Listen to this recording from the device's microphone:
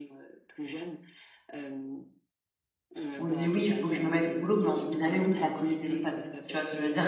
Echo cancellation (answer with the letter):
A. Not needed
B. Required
B